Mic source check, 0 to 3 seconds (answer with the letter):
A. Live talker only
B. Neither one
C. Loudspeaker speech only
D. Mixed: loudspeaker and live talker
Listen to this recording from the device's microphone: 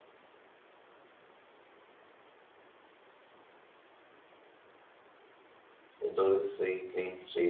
B